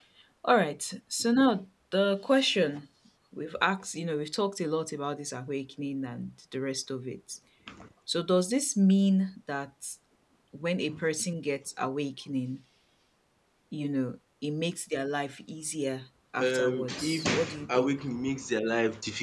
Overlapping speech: Yes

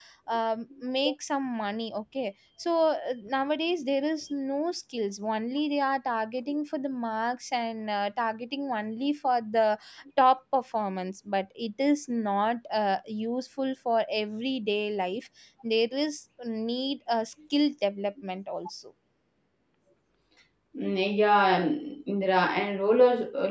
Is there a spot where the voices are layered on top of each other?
No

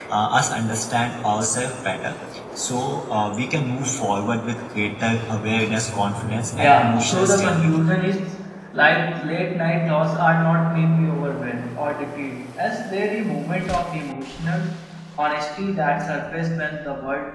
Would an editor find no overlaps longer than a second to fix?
No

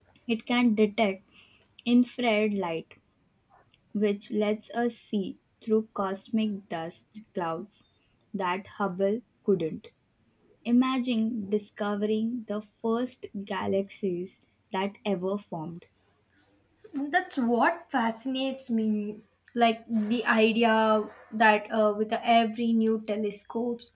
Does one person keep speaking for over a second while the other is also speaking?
No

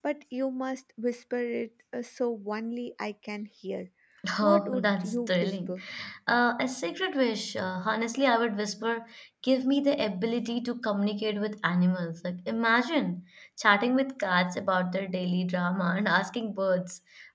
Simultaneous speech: Yes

